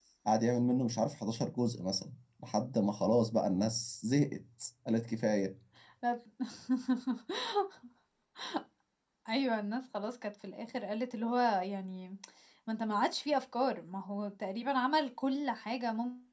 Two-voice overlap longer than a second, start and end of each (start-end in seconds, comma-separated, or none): none